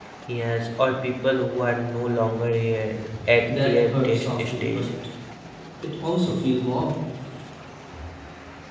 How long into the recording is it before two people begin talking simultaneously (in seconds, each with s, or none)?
3.5 s